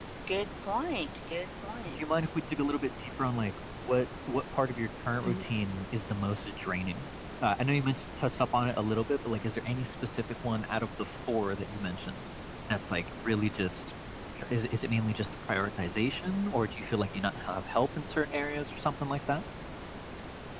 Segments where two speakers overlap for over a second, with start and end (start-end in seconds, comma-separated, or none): none